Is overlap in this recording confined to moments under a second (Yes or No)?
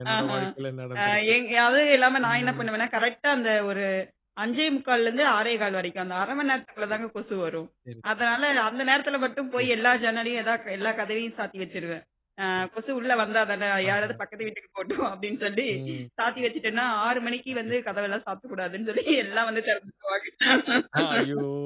Yes